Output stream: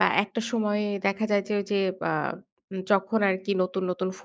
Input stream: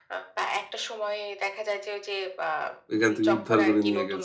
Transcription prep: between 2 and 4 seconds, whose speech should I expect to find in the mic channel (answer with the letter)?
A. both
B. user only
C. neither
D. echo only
A